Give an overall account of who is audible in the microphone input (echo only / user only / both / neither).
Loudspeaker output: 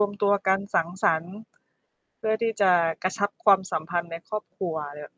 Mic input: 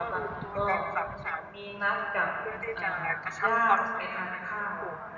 both